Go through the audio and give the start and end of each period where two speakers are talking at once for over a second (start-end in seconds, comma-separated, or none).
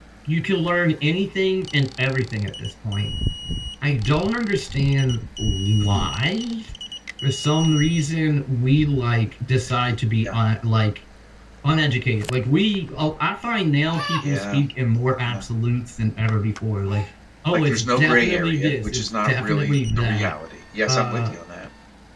17.5-20.3